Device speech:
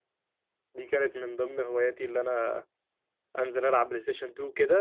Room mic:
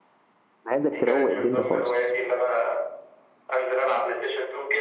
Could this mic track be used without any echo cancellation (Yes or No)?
No